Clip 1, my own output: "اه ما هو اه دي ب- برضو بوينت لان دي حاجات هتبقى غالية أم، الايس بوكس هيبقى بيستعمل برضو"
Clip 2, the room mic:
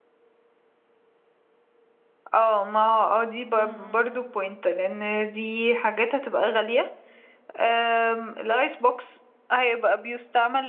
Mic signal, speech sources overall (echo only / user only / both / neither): both